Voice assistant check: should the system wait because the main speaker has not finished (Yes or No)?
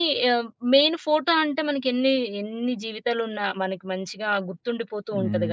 No